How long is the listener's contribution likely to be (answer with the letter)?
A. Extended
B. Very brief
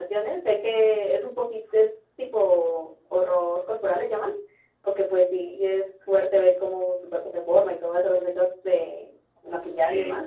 B